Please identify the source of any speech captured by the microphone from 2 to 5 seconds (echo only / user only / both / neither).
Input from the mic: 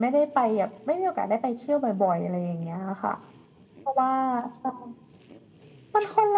echo only